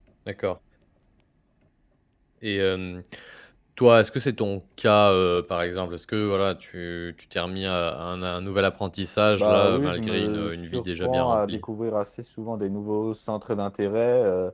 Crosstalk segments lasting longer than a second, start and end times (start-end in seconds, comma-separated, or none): 9.4-11.6